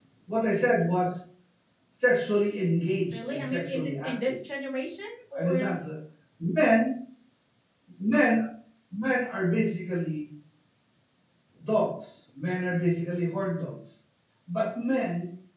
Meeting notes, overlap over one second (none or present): present